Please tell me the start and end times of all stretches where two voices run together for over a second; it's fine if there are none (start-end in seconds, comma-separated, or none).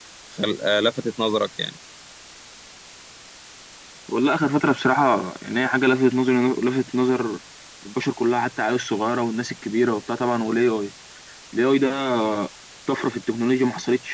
none